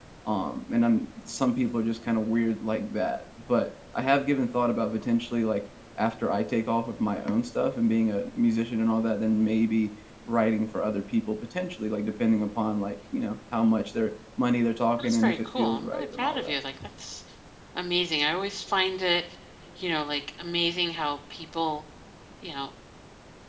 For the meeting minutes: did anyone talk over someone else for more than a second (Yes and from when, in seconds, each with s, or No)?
Yes, from 15.0 s